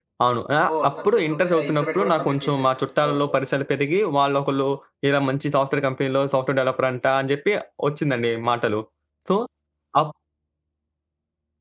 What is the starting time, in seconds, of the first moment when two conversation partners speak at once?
0.7 s

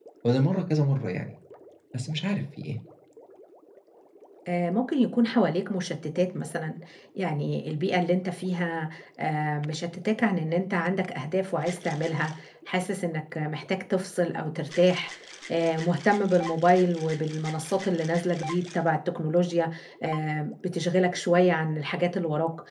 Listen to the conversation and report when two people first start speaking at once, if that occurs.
none

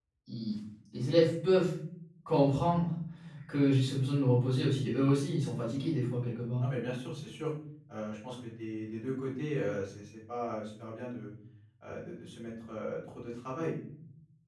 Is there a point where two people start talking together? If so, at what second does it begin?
none

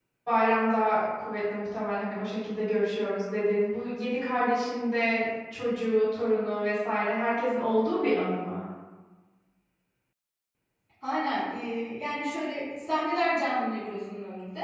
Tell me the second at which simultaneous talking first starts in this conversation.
none

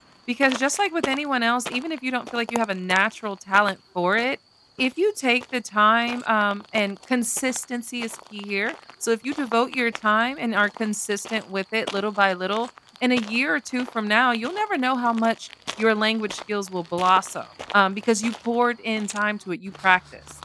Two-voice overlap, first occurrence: none

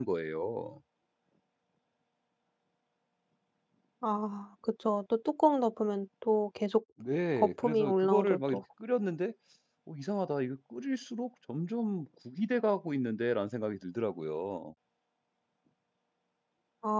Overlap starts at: 7.4 s

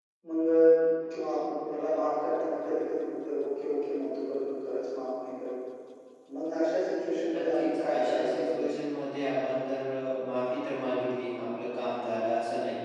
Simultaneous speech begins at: 7.3 s

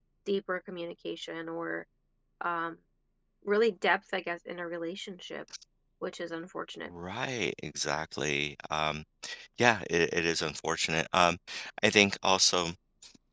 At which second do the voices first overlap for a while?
none

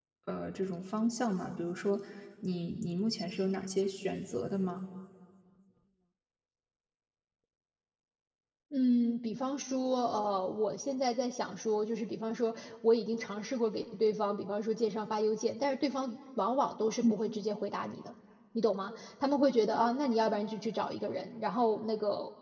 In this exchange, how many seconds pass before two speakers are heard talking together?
none

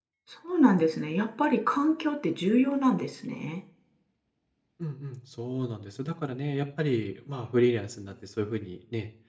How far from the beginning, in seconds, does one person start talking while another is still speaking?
none

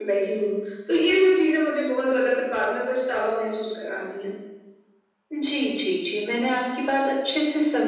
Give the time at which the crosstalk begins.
none

